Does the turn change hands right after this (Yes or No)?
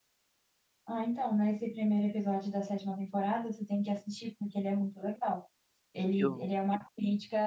No